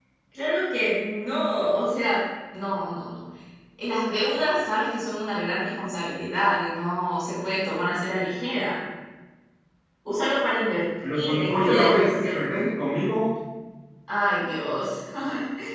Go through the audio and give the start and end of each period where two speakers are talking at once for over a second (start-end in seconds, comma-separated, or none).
11.1-12.3